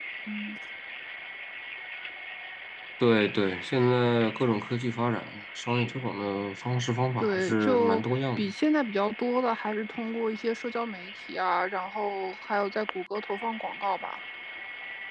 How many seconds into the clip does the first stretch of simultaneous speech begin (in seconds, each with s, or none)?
7.2 s